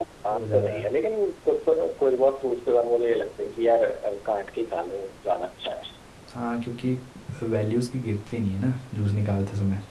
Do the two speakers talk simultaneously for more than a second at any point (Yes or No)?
No